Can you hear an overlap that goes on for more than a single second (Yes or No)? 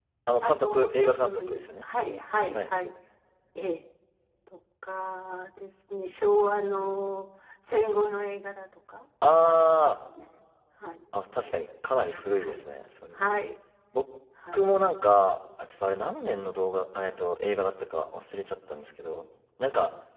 Yes